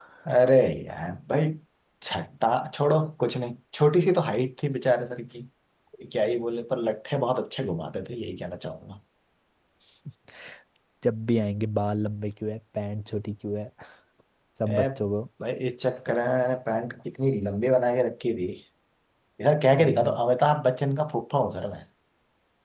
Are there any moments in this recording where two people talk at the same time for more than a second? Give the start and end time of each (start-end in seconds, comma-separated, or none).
none